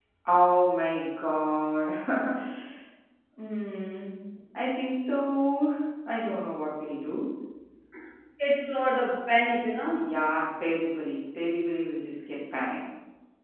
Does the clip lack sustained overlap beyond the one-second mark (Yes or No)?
Yes